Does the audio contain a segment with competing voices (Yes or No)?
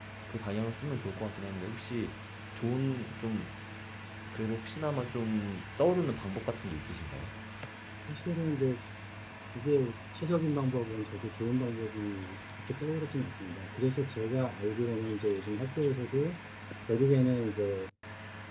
No